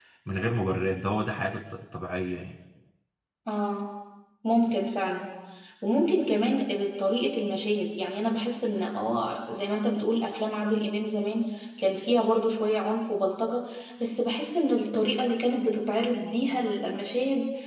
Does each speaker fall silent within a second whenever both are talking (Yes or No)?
Yes